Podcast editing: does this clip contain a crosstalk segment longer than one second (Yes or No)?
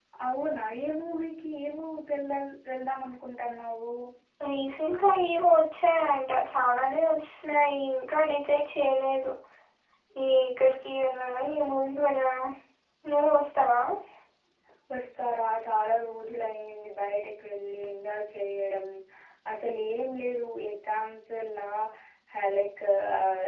No